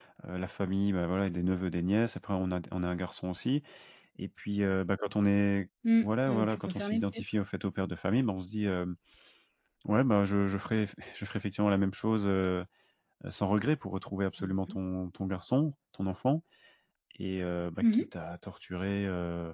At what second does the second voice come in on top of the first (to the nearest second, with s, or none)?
6 s